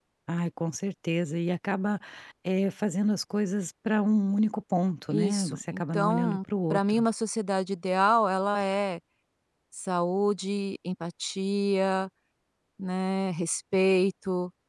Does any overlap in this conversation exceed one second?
Yes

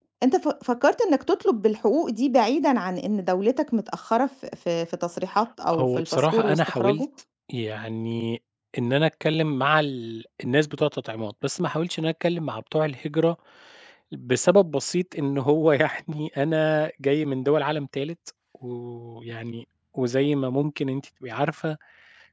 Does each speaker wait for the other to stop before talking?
No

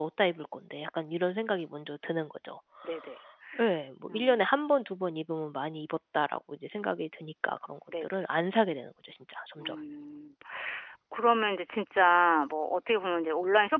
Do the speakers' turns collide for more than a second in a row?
No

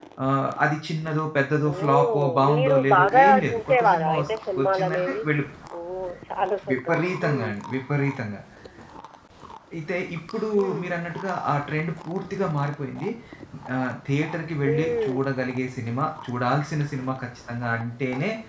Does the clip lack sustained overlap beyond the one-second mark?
No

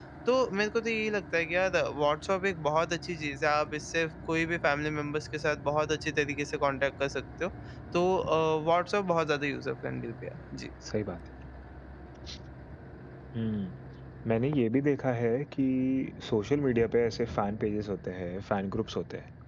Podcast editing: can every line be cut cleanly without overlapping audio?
Yes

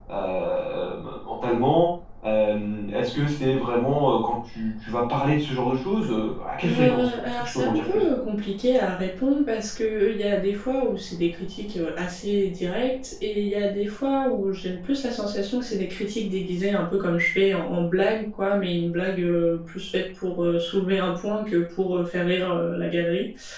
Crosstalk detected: Yes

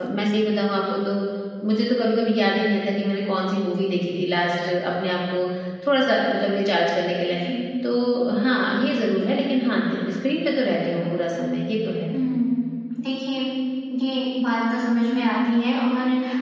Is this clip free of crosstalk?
Yes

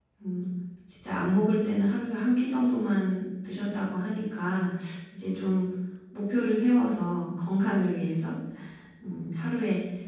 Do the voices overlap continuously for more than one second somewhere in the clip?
No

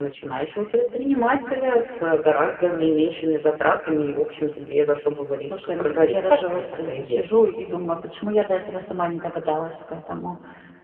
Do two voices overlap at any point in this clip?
Yes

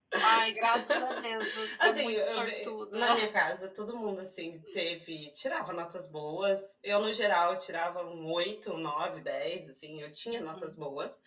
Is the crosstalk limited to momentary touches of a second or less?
No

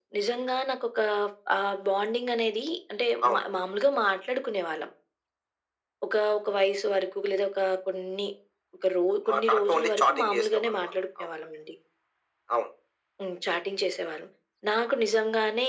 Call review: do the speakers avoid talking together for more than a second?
No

